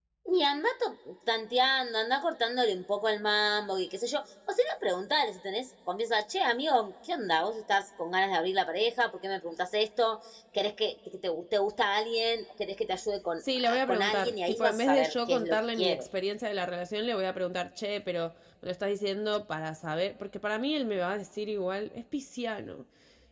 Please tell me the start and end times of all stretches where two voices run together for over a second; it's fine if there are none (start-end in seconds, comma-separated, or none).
13.6-16.1